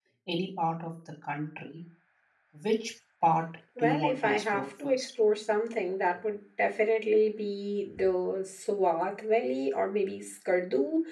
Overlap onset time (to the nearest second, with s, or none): 4 s